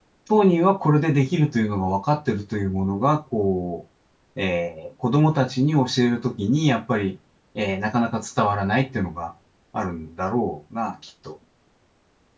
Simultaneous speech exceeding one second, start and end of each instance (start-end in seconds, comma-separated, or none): none